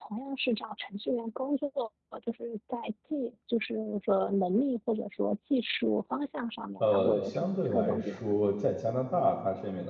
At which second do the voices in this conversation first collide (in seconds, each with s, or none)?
6.8 s